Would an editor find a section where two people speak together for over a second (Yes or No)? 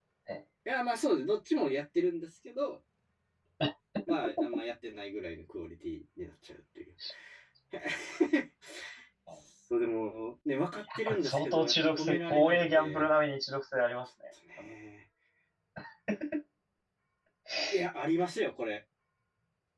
Yes